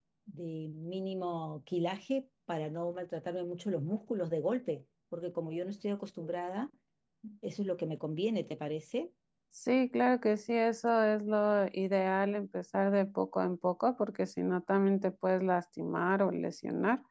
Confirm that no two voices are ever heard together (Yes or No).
Yes